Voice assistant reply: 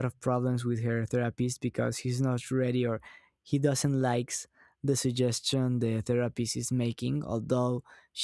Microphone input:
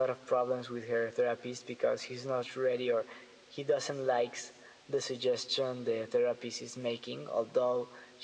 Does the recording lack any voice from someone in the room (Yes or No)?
Yes